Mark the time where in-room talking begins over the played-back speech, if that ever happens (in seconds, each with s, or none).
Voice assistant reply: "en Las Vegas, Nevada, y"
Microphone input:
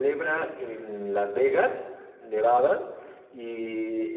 none